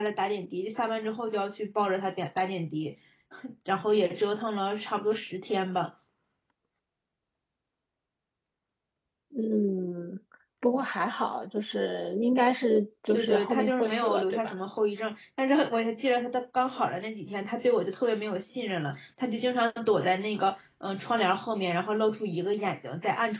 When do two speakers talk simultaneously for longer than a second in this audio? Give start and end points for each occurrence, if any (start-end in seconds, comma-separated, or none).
13.1-14.5